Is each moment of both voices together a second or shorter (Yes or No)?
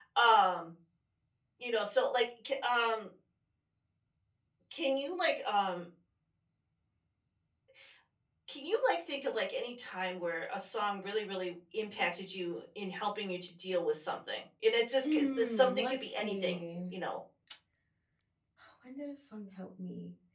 No